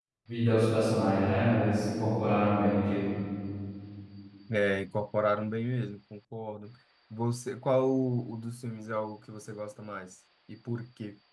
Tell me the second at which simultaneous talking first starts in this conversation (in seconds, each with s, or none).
none